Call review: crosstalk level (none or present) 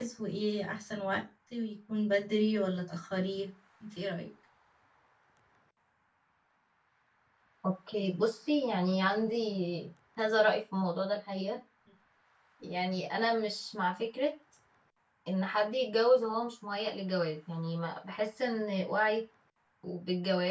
none